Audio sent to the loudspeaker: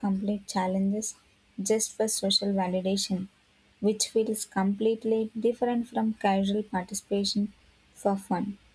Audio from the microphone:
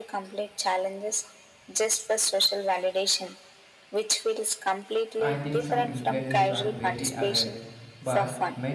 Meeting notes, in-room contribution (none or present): present